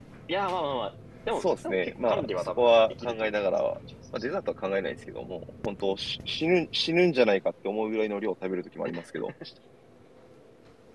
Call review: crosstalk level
present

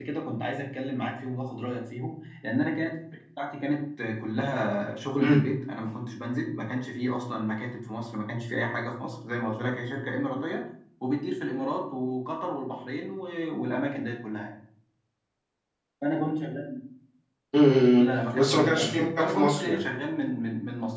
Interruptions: present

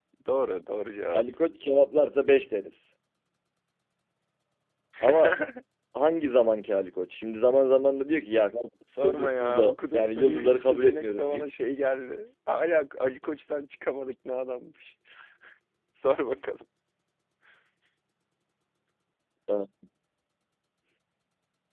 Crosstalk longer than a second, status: present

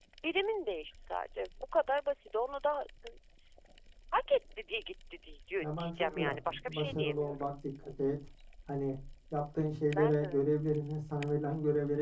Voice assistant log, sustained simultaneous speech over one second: present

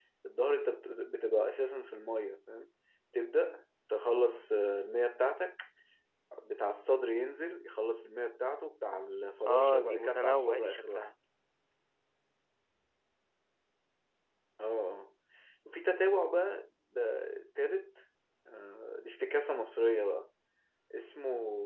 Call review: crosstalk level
present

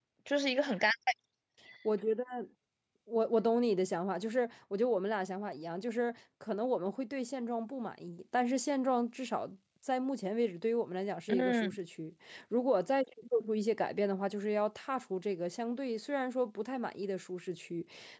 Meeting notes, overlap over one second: none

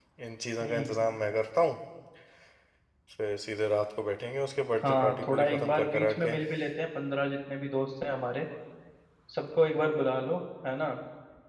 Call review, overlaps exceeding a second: present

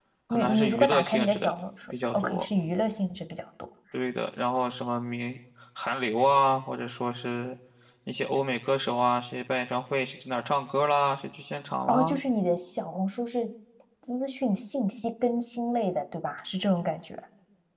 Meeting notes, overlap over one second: present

